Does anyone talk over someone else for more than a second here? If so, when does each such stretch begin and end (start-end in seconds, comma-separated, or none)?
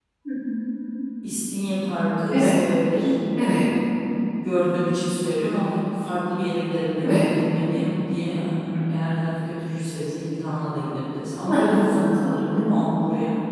none